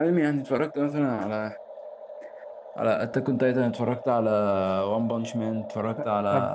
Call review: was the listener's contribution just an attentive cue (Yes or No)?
No